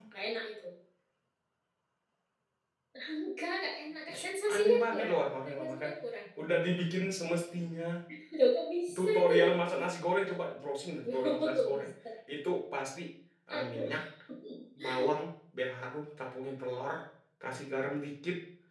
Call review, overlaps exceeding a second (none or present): present